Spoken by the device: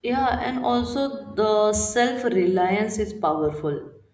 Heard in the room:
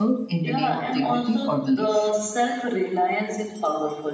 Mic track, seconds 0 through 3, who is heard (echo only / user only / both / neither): both